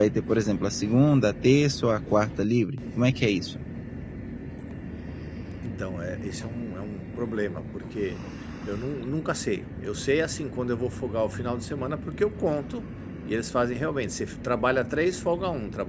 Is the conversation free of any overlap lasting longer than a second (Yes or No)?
Yes